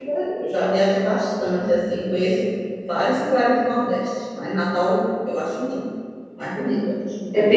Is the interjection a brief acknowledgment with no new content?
No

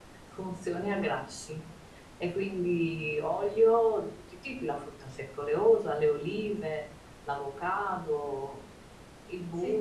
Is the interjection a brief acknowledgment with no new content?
No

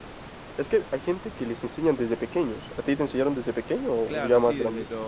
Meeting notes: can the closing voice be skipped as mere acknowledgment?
No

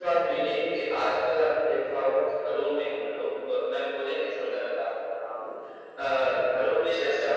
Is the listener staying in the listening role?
Yes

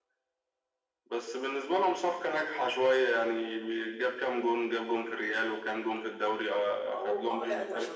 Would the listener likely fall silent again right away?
No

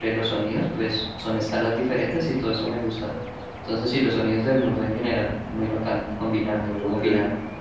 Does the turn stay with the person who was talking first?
No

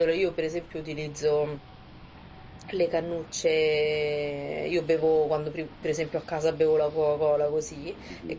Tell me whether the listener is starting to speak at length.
No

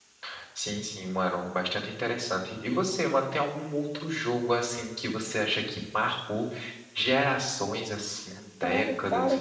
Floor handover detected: Yes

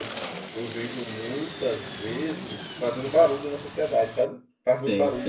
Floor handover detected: Yes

